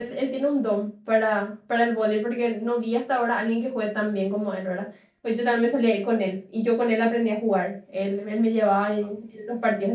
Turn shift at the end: No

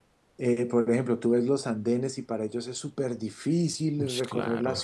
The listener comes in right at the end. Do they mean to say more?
No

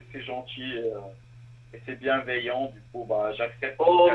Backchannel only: No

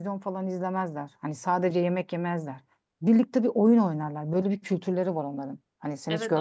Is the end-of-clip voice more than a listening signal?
Yes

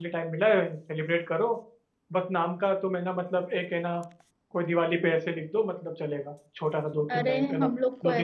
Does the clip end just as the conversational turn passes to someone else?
Yes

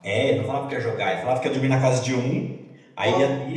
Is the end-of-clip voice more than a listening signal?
No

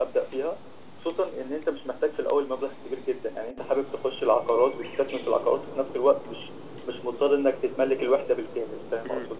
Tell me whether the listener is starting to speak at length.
Yes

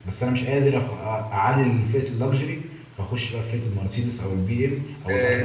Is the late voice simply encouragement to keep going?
No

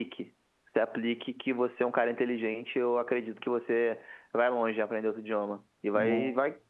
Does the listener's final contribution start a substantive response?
No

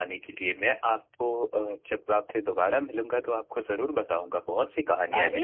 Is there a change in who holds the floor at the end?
Yes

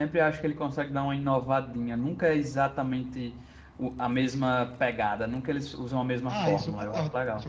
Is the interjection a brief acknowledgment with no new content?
No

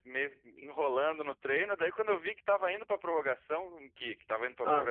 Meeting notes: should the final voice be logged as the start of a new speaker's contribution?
No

